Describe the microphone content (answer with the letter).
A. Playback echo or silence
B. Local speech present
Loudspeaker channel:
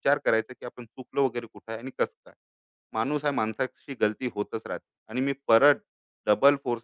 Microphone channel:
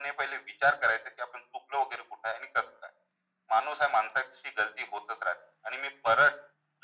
A